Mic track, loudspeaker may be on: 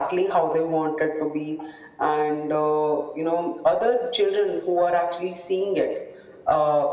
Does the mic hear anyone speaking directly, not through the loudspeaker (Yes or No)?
No